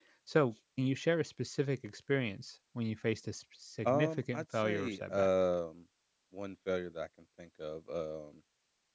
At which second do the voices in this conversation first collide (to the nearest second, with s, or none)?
4 s